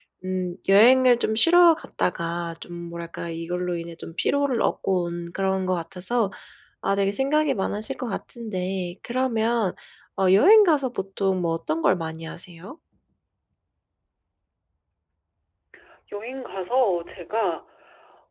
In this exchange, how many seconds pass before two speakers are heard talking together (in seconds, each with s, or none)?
none